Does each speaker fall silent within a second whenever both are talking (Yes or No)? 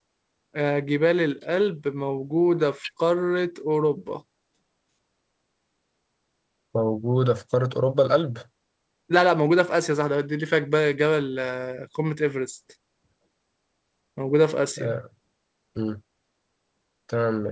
Yes